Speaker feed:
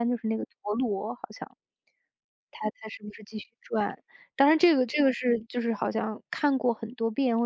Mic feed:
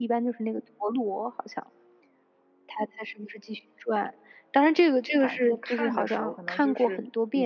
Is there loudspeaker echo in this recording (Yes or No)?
Yes